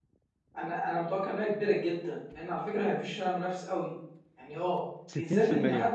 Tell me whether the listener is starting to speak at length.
No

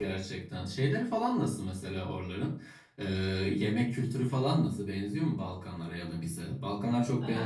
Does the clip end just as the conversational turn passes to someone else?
Yes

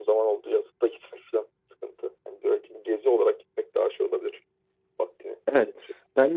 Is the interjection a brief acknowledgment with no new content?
No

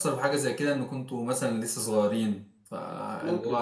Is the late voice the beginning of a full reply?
No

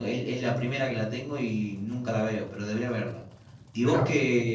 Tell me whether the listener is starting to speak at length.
No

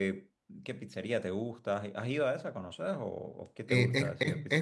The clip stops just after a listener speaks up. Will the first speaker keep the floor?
No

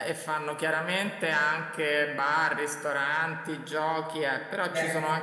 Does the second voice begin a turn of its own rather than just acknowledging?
No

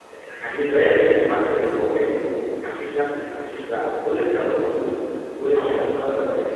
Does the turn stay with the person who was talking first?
Yes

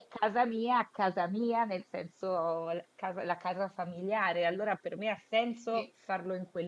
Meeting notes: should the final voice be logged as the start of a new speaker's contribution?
No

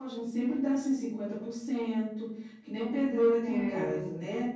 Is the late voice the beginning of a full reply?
No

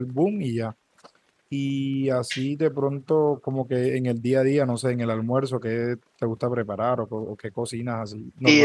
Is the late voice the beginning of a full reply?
Yes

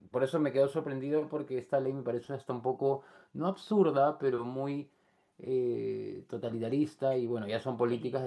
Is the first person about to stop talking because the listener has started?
No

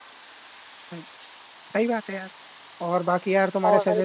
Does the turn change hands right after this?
No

